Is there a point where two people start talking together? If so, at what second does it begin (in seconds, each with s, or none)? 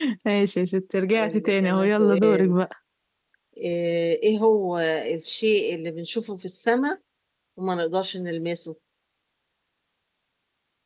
1.2 s